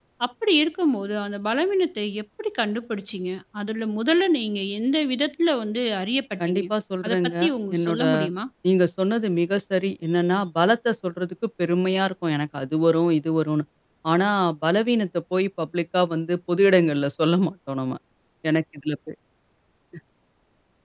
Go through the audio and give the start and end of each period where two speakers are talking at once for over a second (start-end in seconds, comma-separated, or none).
none